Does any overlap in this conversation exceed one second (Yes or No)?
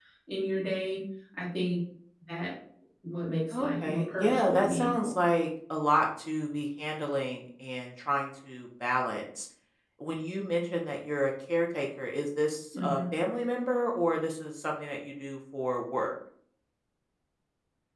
Yes